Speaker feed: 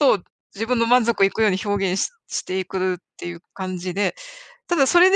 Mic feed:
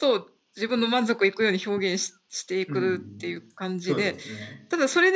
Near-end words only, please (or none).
うん、そうですね。